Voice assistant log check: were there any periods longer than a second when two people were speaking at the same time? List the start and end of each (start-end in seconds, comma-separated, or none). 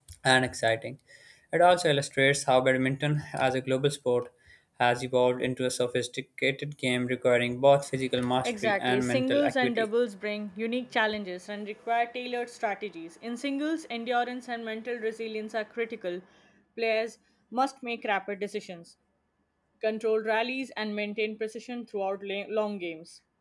8.4-9.9